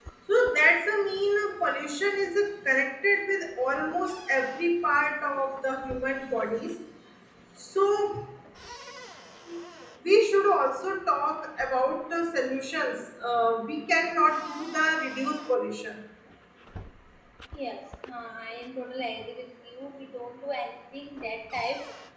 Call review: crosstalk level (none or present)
none